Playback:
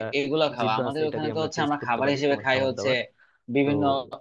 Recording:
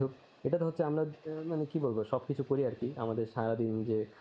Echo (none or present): none